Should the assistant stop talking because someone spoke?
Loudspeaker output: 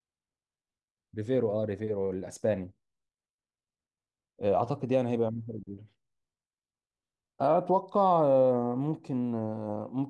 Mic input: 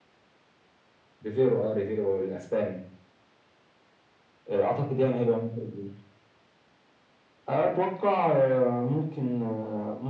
No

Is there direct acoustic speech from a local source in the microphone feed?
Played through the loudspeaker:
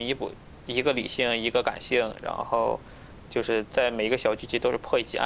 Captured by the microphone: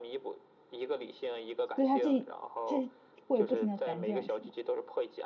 Yes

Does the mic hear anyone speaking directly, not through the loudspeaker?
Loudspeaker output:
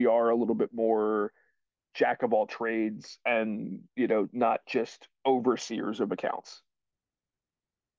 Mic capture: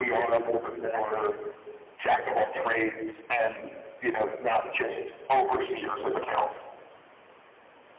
No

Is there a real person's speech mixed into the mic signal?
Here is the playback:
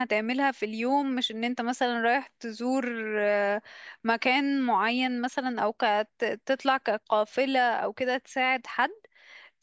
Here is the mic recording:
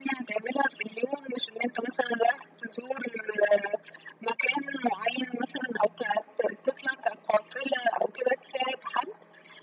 No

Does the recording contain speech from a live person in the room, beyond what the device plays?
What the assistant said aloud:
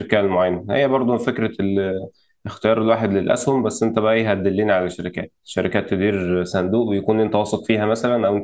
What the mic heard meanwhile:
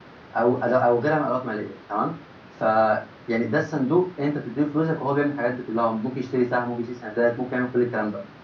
Yes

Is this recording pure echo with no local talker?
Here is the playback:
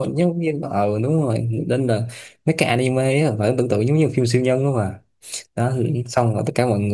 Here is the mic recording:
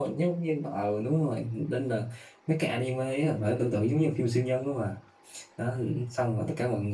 Yes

